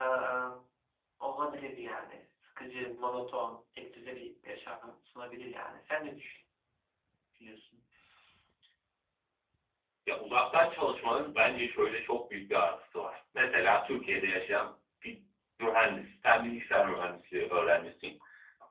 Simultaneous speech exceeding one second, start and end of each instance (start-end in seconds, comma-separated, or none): none